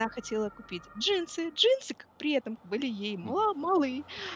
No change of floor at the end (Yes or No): Yes